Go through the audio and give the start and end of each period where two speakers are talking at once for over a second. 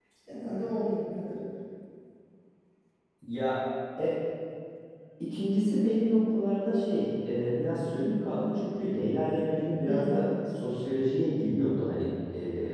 none

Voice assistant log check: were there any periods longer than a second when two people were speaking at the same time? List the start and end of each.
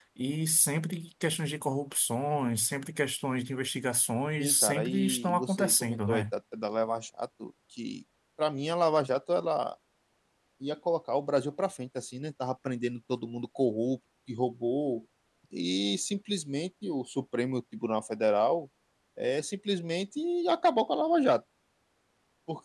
4.4-6.2

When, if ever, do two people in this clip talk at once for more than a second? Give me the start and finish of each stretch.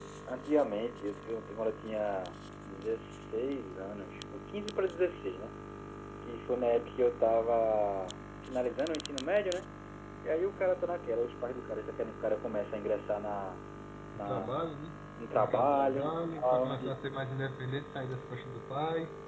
15.3-16.9

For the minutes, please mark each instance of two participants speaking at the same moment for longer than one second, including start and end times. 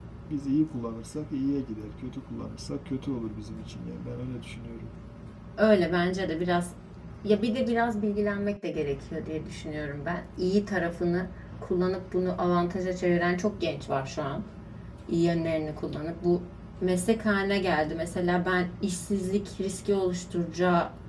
none

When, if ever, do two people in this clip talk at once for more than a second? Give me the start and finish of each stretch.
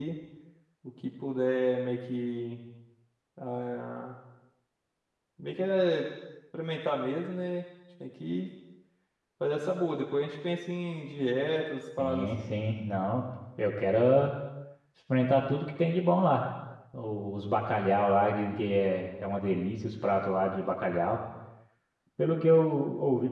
none

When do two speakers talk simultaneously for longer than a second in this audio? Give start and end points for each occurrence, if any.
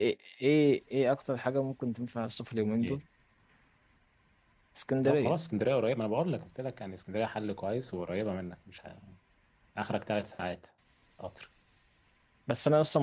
none

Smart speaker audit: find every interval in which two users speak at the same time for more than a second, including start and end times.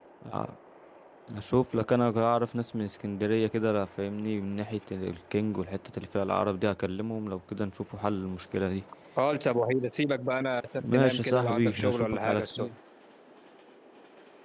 10.8-12.7

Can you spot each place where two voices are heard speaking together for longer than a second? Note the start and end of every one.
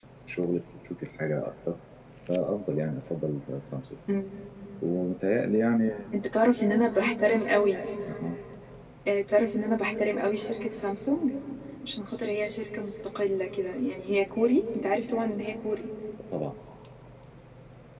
none

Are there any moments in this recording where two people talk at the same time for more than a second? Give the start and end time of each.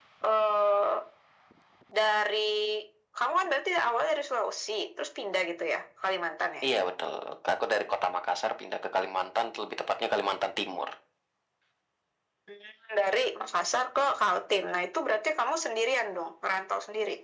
none

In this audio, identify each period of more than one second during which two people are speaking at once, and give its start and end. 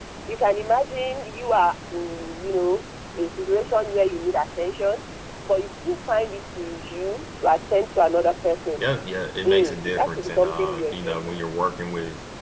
9.4-11.4

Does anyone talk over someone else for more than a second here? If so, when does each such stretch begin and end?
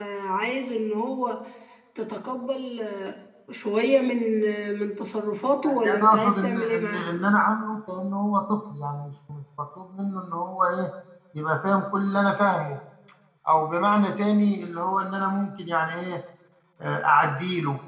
5.6-7.1

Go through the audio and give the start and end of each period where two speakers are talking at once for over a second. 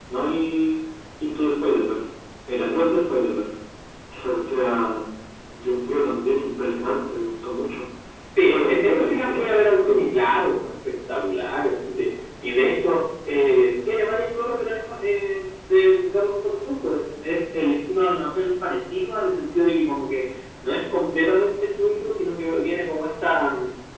8.4-10.0

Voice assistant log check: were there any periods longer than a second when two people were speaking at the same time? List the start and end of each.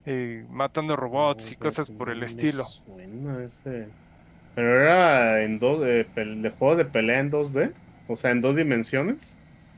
1.1-2.7

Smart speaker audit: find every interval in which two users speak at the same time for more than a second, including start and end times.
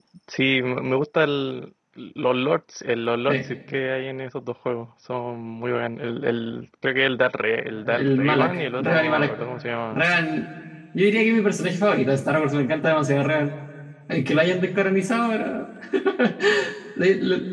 7.7-9.3

